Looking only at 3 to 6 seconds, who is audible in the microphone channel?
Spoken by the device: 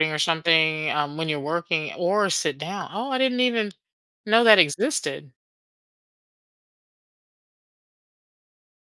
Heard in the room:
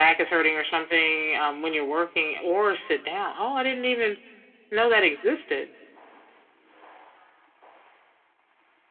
echo only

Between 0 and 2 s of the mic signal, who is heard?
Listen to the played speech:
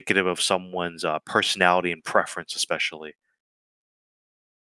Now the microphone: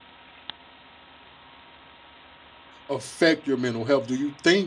neither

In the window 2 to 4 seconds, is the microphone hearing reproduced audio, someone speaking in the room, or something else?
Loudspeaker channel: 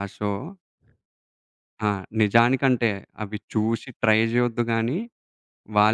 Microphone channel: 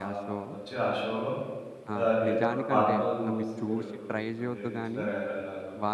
both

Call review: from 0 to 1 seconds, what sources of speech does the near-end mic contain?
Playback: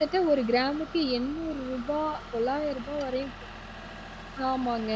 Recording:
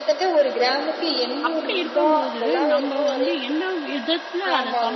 echo only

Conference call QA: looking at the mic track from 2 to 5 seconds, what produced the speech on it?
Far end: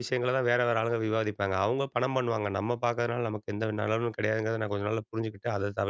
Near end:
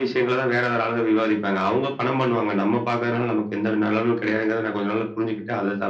echo only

